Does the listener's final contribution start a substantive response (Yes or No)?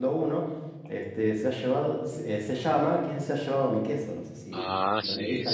Yes